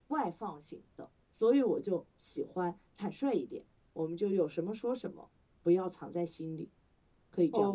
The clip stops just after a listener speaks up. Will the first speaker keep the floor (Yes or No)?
No